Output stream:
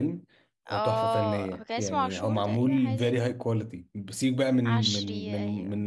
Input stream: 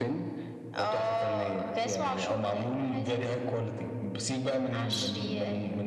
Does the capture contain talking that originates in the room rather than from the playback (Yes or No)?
No